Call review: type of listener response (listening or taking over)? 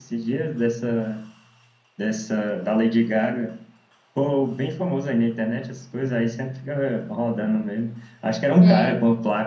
listening